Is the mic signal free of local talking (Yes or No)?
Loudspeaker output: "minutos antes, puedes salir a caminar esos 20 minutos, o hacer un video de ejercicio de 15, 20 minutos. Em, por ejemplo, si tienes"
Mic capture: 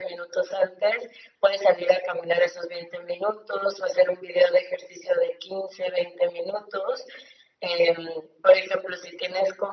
Yes